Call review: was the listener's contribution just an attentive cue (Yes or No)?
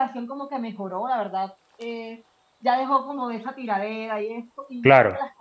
Yes